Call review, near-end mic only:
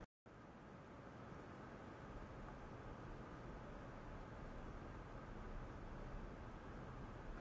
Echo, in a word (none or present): none